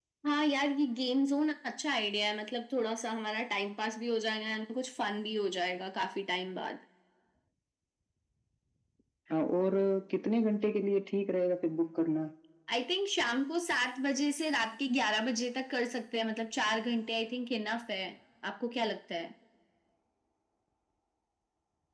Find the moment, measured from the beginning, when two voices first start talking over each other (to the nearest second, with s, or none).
none